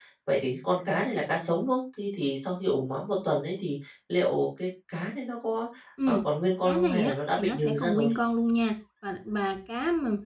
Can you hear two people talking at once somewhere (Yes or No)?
Yes